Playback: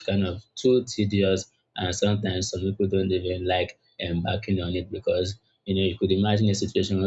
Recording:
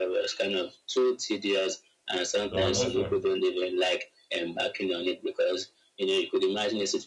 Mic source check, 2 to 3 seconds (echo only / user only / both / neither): both